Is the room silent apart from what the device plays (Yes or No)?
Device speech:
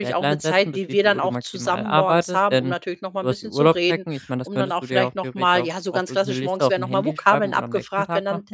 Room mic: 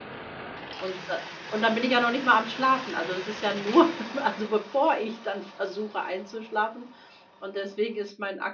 No